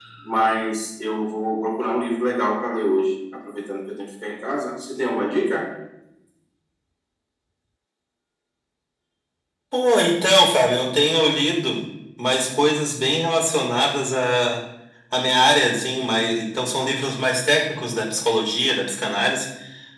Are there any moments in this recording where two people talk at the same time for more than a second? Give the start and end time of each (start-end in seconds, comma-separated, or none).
none